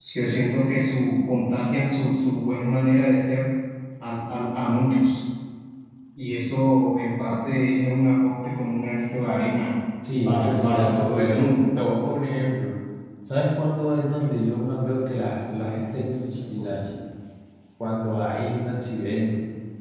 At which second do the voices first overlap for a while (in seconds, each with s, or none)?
10.2 s